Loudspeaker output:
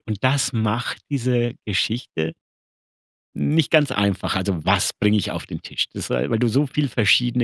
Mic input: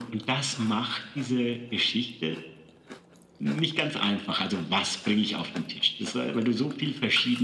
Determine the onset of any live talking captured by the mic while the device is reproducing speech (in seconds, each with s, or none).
none